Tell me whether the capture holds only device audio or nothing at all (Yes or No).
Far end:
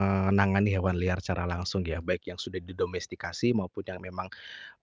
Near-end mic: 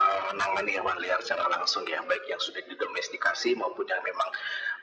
Yes